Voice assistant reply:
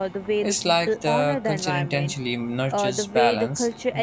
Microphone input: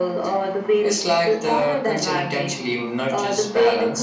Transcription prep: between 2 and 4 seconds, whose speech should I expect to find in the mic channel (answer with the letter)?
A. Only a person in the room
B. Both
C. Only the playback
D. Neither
C